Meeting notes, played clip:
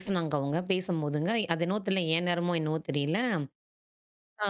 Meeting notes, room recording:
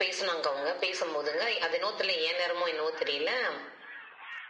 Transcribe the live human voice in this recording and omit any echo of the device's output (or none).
none